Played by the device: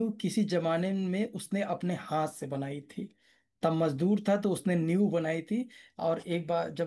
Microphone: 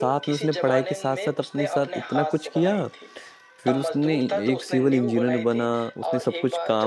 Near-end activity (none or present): present